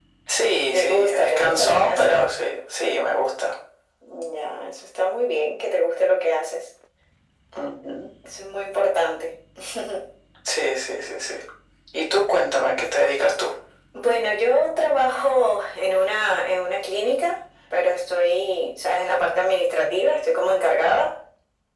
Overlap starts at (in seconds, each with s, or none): 0.7 s